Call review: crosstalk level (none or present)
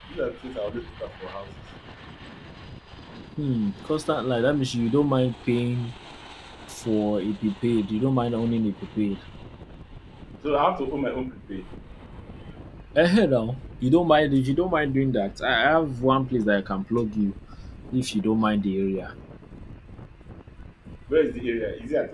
none